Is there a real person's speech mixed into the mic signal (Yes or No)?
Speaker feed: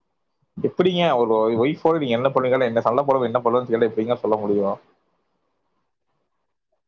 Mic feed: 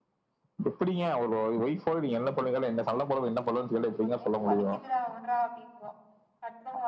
Yes